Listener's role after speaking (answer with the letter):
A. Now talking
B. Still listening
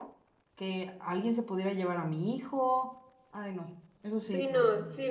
A